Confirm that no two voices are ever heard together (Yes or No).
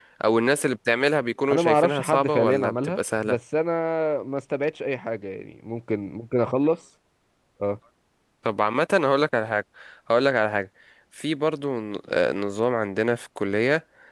No